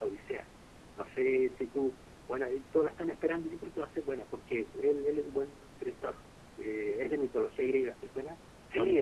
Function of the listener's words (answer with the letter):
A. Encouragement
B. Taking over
B